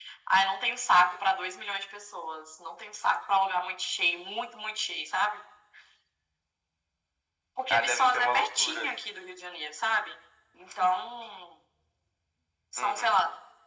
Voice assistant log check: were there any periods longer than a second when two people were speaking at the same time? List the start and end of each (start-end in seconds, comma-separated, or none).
7.7-8.9